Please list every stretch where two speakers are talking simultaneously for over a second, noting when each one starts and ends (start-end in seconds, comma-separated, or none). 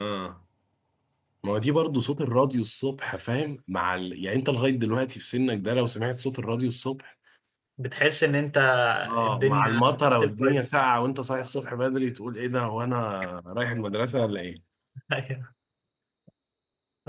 9.3-10.6